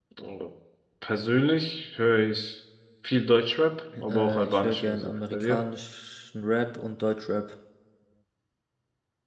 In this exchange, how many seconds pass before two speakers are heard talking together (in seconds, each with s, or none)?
3.9 s